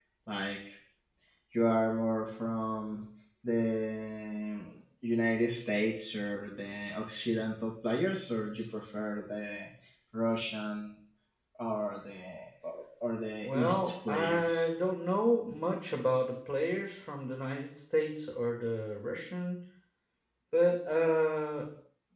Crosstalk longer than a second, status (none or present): present